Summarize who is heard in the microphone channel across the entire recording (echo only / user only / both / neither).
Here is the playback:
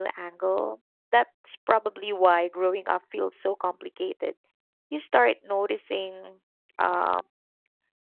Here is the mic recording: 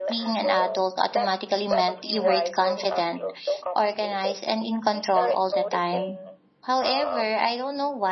both